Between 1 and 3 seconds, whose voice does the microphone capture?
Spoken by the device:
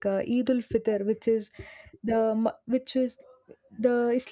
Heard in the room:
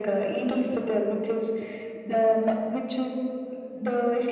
echo only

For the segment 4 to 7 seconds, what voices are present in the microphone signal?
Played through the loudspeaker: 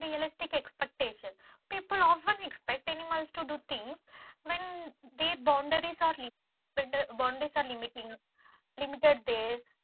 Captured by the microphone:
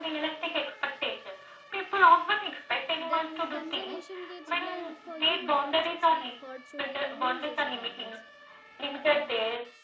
both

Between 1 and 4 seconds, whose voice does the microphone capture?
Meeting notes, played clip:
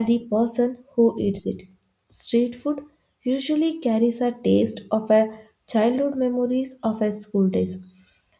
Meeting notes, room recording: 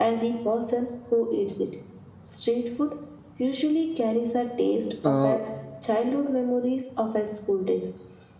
echo only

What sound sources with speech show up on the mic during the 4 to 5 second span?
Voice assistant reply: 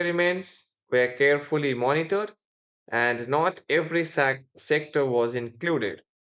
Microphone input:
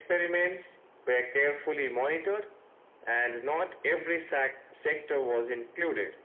echo only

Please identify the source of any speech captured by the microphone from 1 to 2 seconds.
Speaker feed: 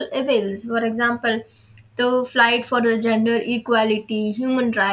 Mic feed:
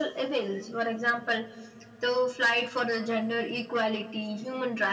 echo only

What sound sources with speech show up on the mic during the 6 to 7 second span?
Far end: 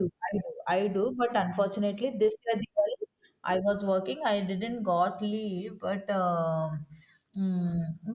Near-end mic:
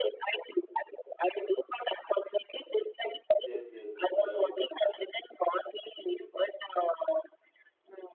echo only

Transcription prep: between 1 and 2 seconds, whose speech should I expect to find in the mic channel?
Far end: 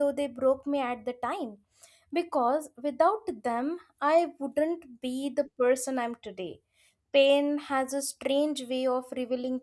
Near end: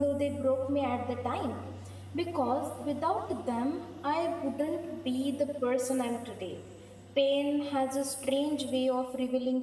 echo only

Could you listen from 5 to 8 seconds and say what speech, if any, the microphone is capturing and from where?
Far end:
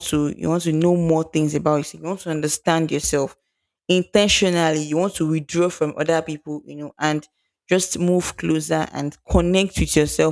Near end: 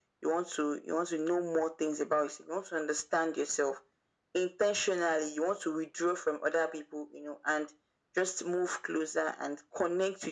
echo only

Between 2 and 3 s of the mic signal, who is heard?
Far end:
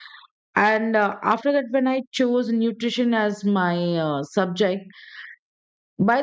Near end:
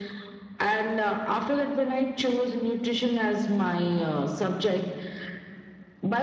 echo only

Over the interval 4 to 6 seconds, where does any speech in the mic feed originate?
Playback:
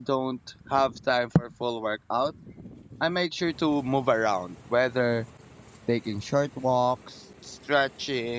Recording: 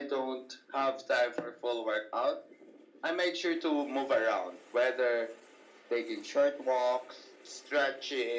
echo only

